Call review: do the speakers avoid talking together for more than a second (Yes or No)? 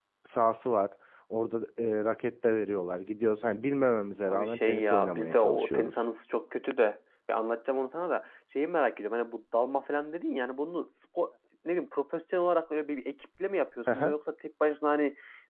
No